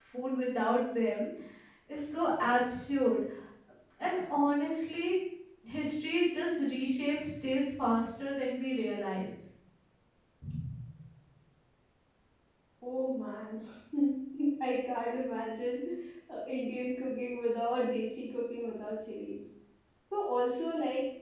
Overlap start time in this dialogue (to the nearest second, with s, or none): none